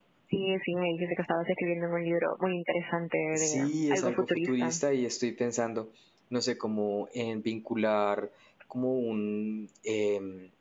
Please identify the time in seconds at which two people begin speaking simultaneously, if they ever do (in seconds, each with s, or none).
3.3 s